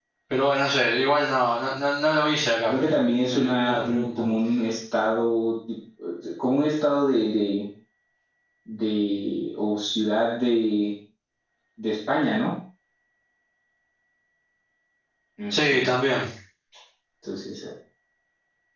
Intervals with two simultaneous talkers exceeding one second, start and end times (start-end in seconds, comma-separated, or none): 2.7-4.2